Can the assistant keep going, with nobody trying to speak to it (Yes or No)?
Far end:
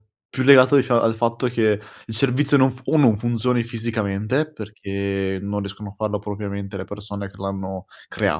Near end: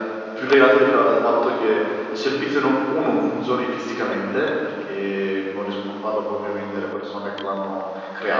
Yes